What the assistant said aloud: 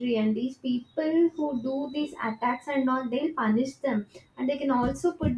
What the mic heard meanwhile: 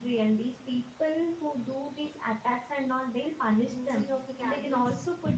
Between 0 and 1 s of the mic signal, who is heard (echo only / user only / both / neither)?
echo only